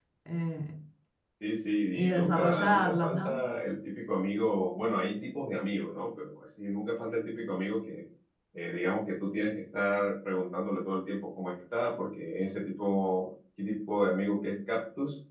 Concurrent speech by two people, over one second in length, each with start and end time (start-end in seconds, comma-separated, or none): 2.1-3.4